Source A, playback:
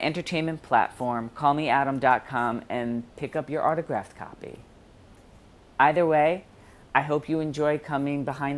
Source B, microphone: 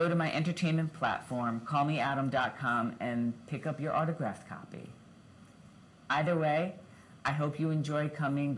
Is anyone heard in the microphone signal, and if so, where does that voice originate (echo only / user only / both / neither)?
echo only